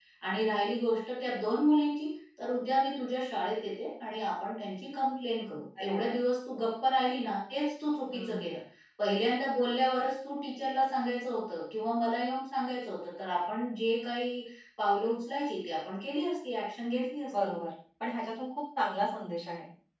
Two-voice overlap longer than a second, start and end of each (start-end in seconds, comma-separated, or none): none